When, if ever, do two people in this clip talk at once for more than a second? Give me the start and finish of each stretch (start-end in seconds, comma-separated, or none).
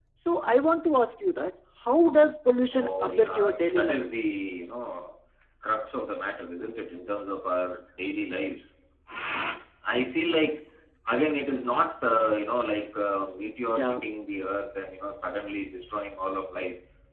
2.7-4.0